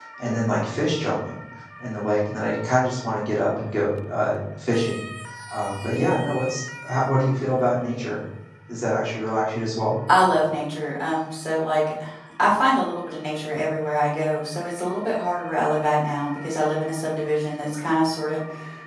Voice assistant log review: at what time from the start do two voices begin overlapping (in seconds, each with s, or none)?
none